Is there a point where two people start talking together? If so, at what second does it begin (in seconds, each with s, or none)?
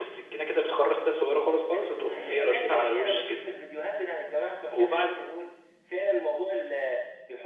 2.0 s